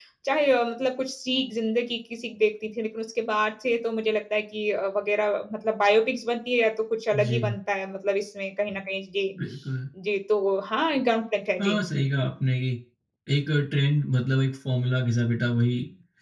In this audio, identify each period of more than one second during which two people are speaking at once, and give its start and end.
none

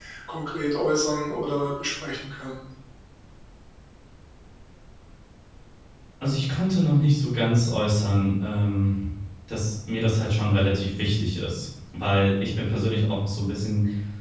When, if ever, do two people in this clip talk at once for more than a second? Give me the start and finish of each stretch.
none

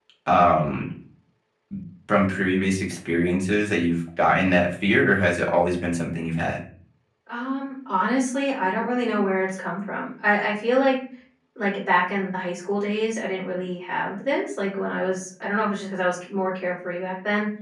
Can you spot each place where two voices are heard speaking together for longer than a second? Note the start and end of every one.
none

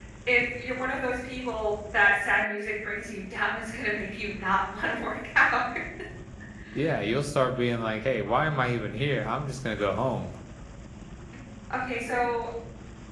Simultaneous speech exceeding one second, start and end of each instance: none

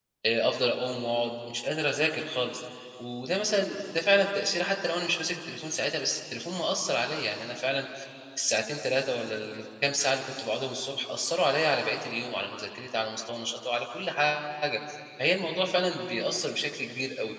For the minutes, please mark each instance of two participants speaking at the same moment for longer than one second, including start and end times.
none

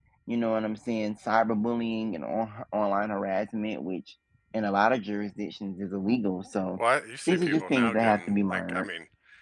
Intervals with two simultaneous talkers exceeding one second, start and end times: 7.3-8.9

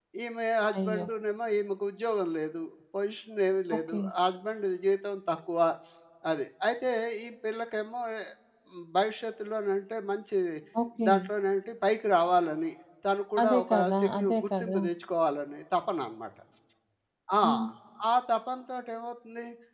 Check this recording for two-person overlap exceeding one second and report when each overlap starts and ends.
13.4-14.8

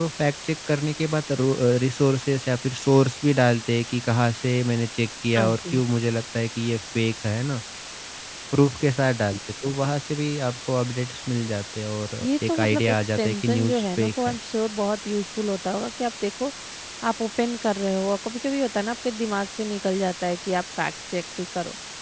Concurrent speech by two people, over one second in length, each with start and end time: 12.2-14.4

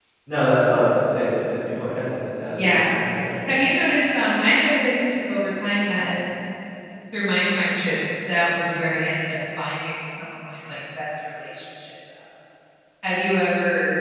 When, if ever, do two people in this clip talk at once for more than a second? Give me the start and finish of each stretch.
none

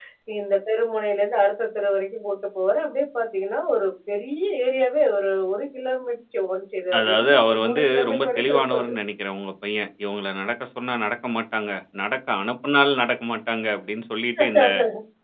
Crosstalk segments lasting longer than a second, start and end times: 7.0-8.9

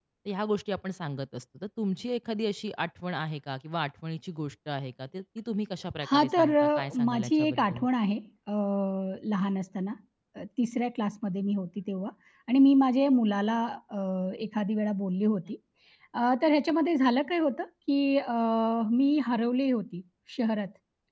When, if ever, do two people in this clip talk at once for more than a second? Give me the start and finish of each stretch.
6.1-7.8

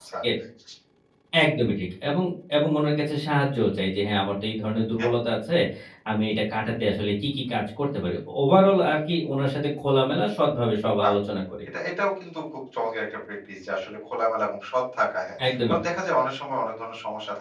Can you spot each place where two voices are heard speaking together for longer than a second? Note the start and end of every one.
none

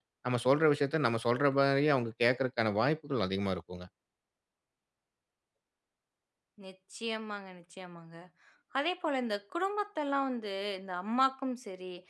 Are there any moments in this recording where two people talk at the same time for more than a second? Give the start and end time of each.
none

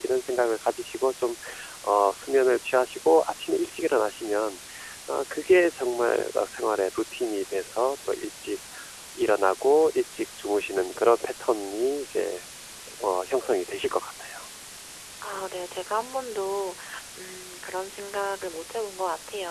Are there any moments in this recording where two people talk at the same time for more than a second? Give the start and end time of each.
none

